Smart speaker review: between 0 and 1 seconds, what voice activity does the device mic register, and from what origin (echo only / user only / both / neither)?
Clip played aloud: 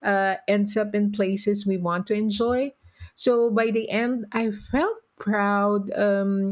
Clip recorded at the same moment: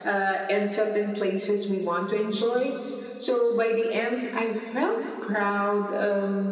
echo only